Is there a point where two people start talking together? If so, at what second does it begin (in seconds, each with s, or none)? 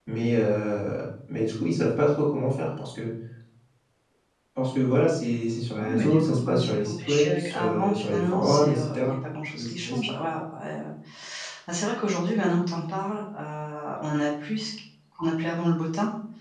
5.8 s